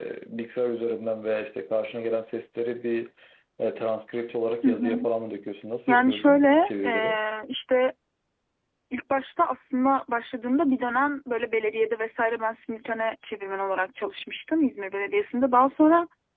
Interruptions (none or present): present